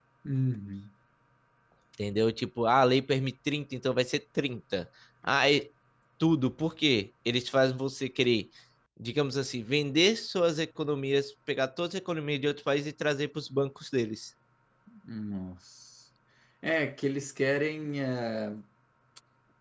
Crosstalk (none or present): none